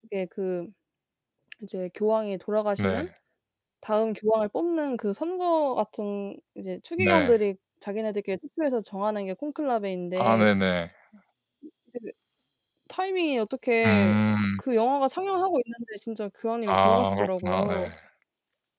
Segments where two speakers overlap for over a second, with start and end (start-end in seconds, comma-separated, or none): 16.7-17.9